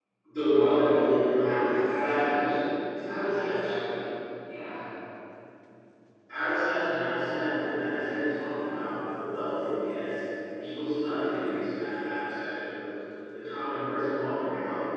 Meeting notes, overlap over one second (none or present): present